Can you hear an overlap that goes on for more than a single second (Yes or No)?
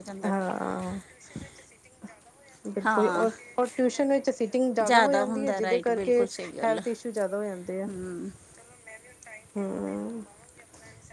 Yes